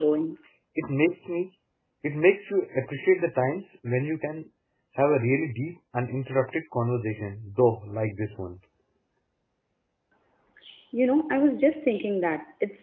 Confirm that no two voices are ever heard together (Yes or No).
Yes